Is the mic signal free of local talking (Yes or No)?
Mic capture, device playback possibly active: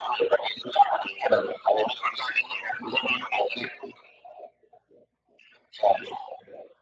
Yes